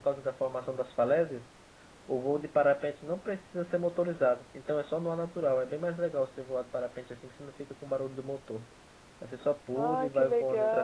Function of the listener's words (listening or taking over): taking over